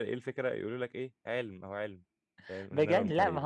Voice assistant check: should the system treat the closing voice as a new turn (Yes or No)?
Yes